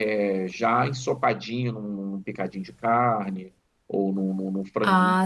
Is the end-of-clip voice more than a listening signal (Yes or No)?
No